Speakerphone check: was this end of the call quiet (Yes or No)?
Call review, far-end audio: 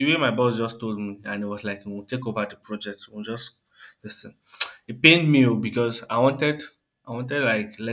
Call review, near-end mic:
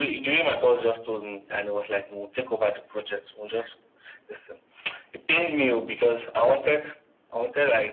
Yes